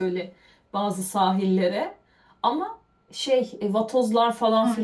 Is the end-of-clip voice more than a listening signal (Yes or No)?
Yes